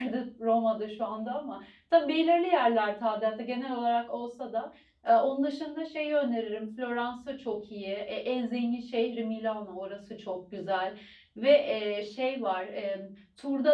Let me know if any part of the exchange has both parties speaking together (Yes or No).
No